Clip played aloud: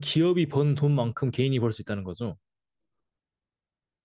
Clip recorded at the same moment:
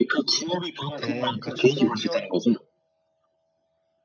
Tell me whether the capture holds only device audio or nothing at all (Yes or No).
No